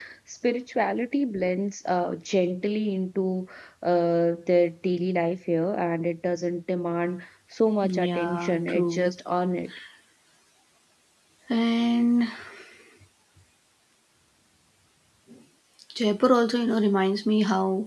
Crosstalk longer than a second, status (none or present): present